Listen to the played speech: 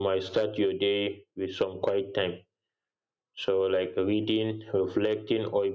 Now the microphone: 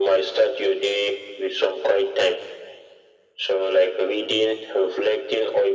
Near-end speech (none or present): none